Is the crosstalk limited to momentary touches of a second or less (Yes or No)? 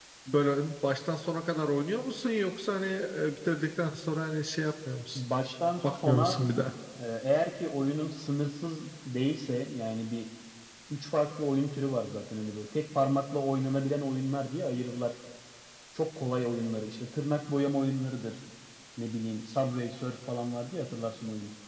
Yes